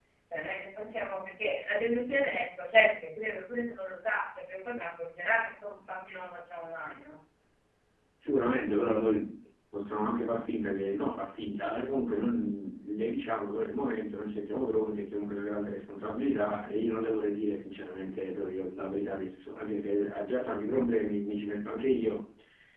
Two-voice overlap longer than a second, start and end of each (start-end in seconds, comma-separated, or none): none